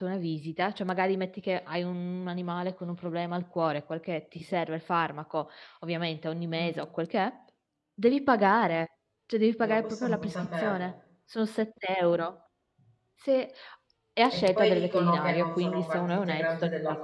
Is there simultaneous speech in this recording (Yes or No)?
Yes